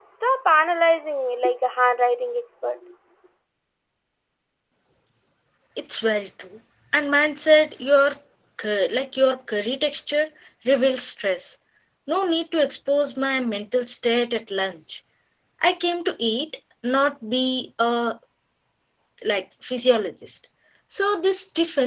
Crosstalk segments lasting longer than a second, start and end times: none

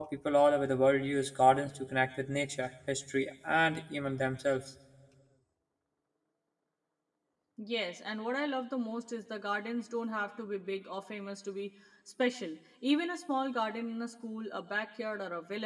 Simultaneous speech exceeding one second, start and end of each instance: none

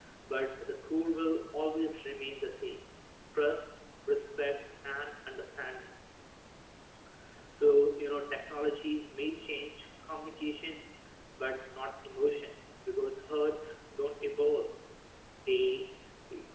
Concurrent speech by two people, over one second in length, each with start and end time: none

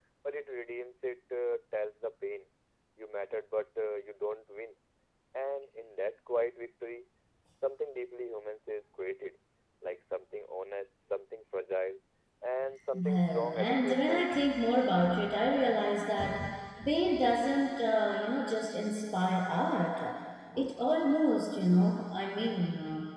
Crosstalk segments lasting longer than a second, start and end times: 12.9-14.4

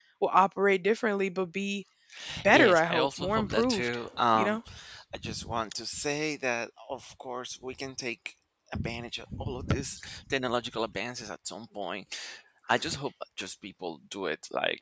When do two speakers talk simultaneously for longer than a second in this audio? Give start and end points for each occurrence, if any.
2.5-4.0

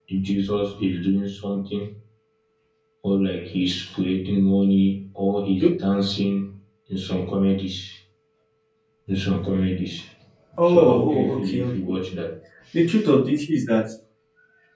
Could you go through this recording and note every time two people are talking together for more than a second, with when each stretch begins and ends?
10.6-11.9

